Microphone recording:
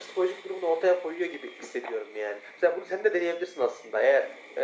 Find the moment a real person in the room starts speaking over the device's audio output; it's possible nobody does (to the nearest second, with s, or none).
none